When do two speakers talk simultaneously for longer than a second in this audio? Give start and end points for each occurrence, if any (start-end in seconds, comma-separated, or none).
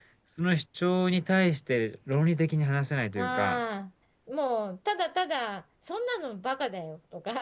none